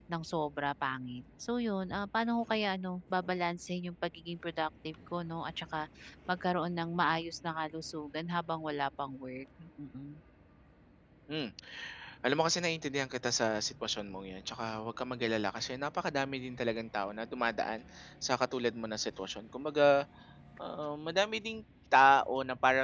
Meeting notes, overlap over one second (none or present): none